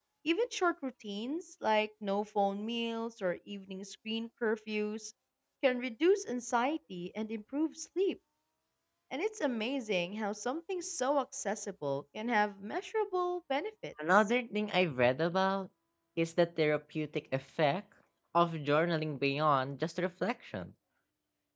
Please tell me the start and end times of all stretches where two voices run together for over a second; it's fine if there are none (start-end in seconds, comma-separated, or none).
none